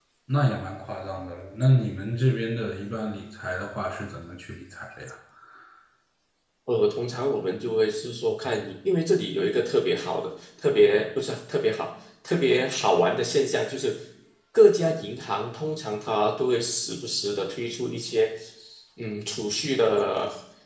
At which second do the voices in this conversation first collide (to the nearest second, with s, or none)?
none